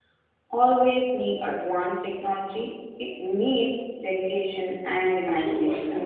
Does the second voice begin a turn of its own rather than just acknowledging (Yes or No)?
Yes